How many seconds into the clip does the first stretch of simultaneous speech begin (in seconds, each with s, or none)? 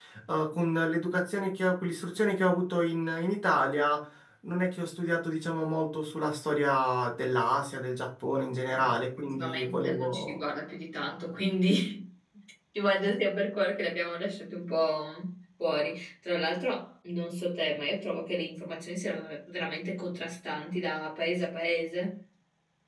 8.7 s